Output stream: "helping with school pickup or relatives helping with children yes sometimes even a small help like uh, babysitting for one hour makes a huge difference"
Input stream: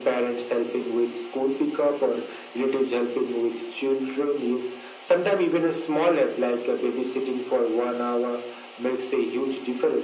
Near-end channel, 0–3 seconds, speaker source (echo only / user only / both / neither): echo only